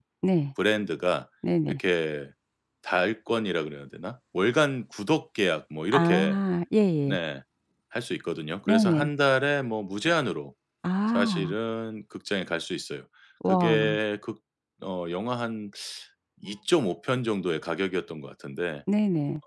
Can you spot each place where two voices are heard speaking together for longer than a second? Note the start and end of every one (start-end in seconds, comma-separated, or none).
none